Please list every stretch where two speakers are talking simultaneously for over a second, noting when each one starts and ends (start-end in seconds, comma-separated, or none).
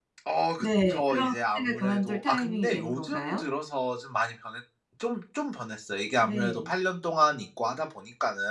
0.6-3.4